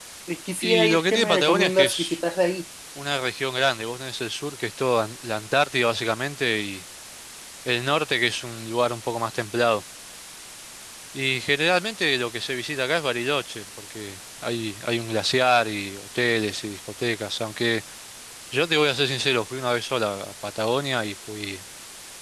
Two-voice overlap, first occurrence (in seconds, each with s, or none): 0.6 s